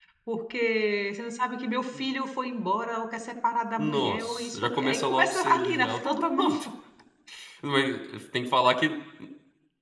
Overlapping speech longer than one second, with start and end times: 3.8-6.5

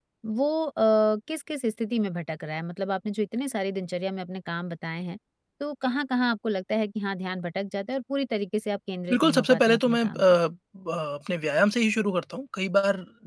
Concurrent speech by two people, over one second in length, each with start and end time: 9.1-10.4

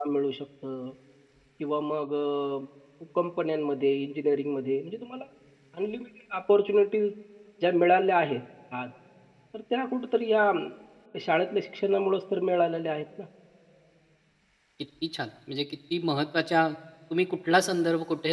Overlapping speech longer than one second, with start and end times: none

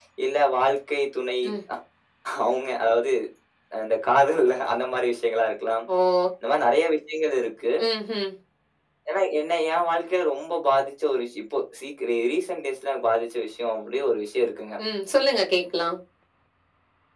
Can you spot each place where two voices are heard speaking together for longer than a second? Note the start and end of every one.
none

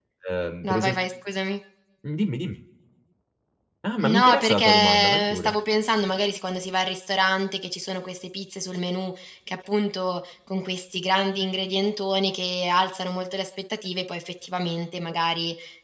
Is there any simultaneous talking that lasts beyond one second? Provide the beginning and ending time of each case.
4.0-5.5

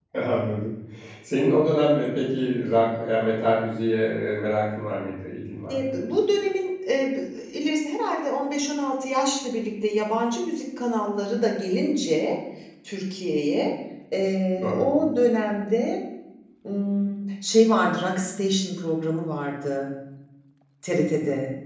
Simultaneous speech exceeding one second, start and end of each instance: none

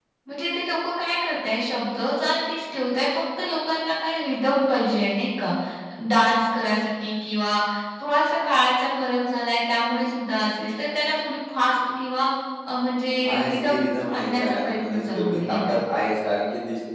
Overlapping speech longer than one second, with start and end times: 13.3-15.8

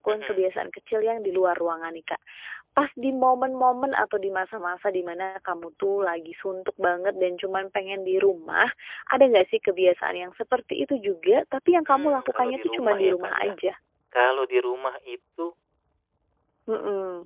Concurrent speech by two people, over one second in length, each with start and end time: 11.9-13.5

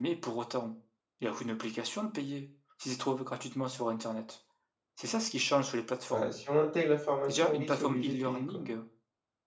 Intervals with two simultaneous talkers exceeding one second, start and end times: 7.3-8.7

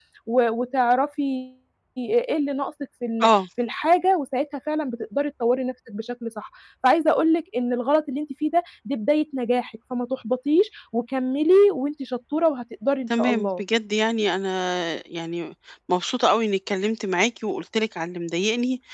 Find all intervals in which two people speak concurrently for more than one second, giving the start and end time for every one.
none

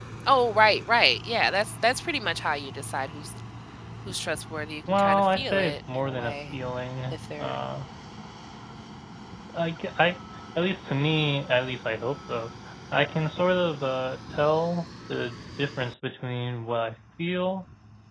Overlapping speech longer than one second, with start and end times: 4.9-6.3

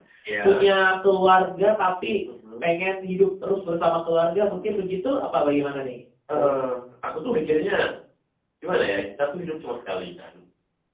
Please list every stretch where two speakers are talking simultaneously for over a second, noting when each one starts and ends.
none

